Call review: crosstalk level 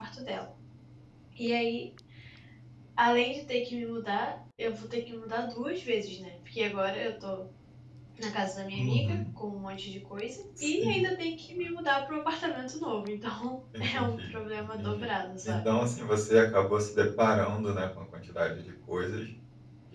present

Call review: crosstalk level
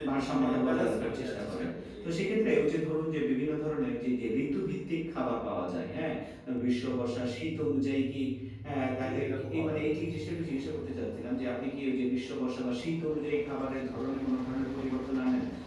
present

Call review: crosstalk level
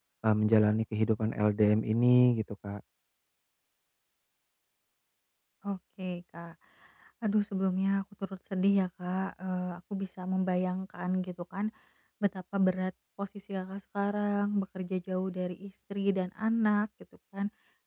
none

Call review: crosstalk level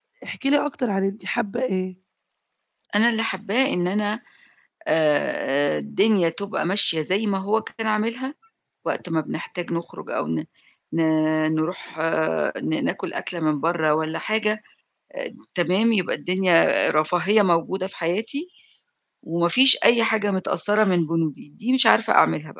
none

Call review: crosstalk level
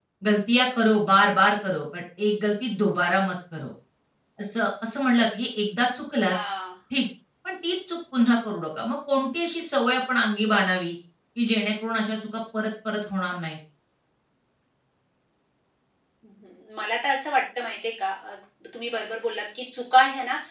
none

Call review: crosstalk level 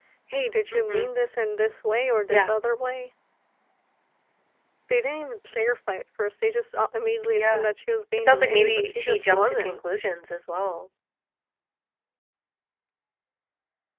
present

